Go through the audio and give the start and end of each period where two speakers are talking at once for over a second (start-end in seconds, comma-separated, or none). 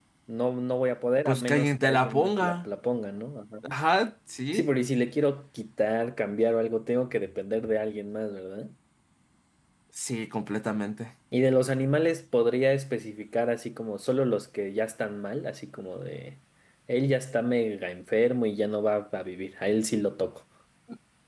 1.2-2.5